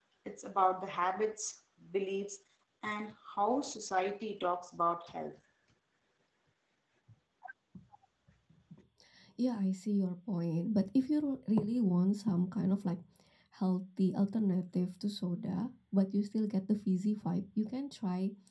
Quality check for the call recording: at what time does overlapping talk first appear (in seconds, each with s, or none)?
none